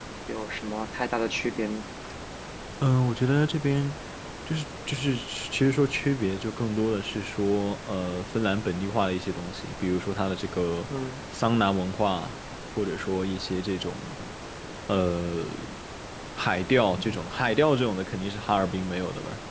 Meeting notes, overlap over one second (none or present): none